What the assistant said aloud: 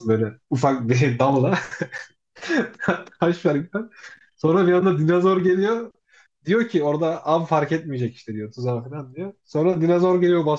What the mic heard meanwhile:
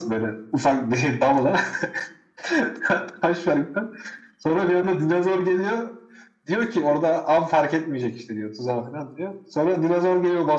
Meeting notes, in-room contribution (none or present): none